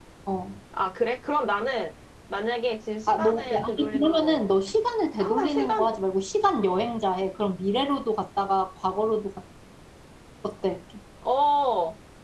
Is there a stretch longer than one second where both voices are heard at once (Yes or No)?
Yes